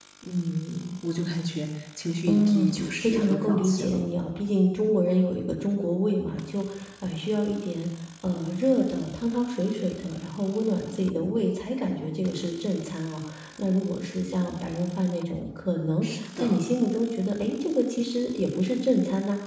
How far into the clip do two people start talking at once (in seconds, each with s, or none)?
2.3 s